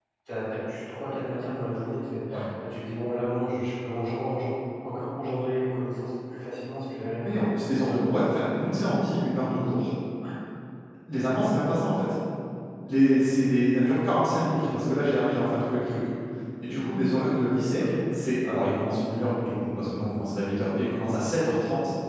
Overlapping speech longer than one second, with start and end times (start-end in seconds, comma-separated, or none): none